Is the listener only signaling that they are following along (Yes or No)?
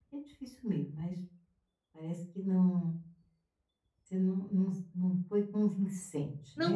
No